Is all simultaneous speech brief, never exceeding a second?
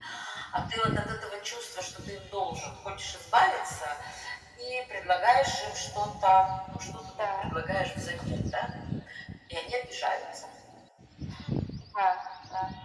Yes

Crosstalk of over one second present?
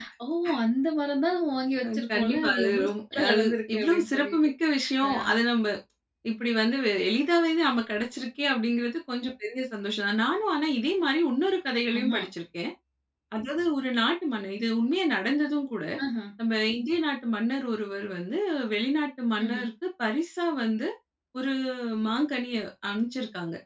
Yes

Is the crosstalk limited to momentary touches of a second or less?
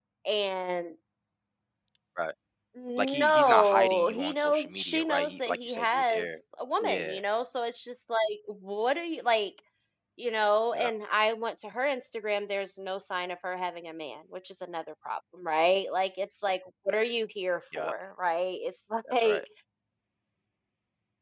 No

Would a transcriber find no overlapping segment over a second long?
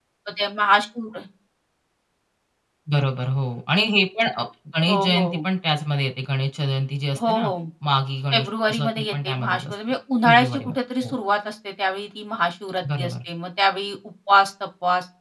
No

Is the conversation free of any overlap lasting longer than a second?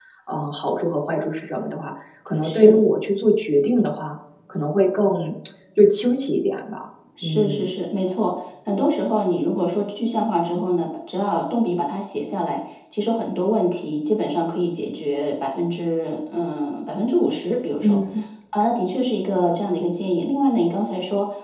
Yes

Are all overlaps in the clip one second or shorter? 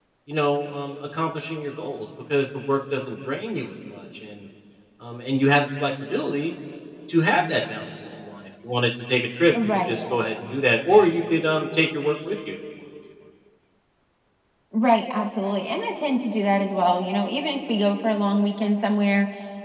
Yes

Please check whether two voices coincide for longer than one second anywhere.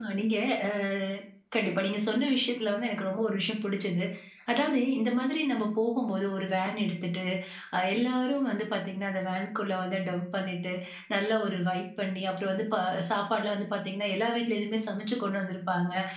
No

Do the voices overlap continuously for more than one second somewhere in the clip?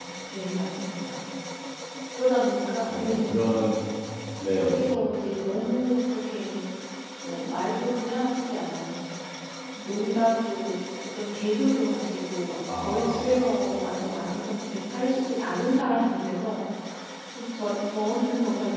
No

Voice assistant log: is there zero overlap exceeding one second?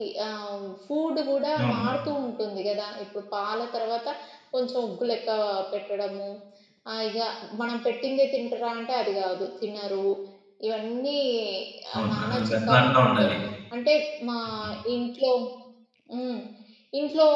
No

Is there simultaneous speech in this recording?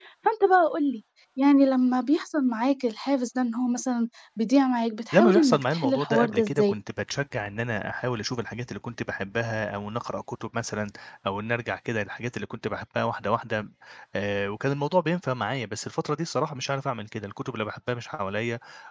Yes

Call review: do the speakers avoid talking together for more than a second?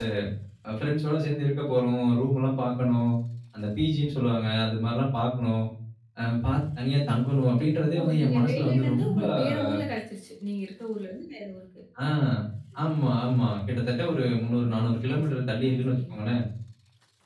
No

